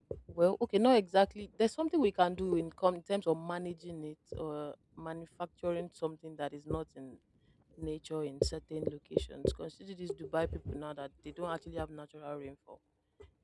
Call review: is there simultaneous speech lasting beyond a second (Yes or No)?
No